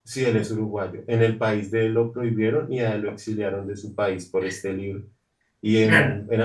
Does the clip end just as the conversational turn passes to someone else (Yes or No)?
No